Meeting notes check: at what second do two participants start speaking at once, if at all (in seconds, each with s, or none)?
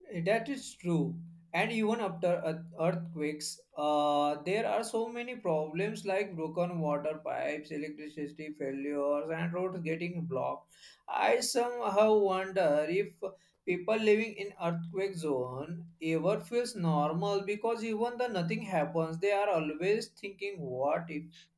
none